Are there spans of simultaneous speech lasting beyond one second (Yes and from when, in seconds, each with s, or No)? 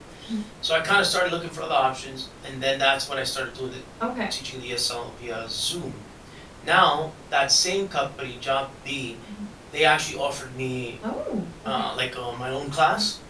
No